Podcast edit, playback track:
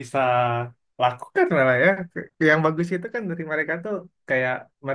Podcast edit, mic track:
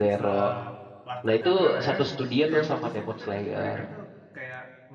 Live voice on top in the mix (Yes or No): Yes